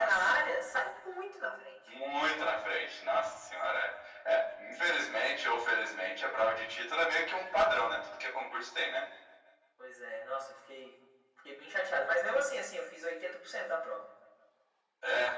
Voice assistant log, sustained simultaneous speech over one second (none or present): none